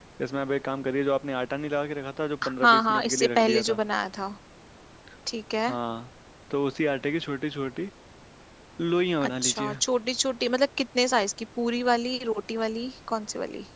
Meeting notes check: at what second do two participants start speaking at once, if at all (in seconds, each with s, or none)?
2.4 s